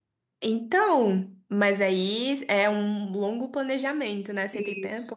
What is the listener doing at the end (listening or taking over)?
taking over